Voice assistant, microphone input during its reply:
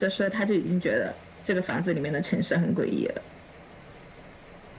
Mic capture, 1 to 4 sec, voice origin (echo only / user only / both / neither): echo only